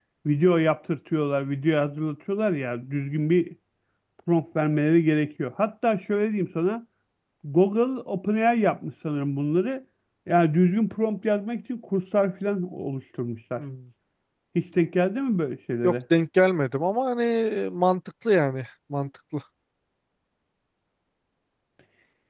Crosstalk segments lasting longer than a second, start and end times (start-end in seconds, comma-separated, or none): none